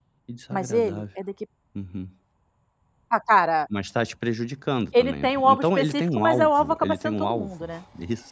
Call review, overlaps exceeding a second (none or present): present